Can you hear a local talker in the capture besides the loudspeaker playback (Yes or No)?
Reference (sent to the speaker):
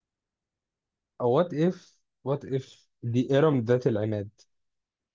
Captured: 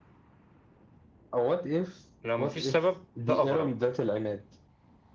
Yes